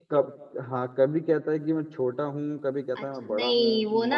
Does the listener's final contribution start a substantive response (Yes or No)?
Yes